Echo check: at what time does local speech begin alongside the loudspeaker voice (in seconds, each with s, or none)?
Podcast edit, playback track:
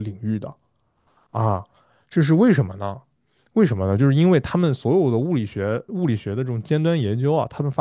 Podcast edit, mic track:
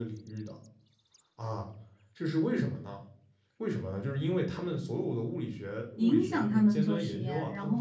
6.0 s